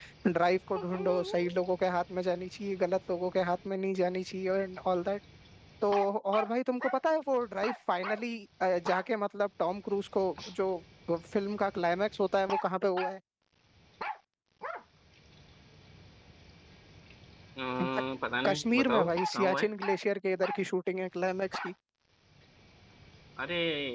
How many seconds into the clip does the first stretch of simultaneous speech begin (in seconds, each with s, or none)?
18.4 s